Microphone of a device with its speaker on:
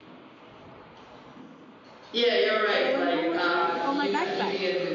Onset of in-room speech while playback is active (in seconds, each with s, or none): 2.7 s